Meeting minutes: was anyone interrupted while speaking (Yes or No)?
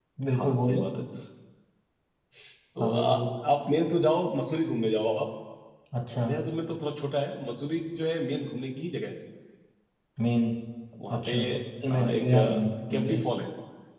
Yes